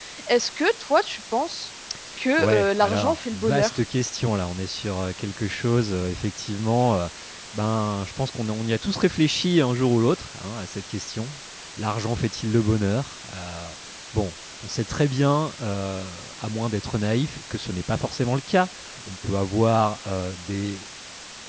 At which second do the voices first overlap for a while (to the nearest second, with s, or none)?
2 s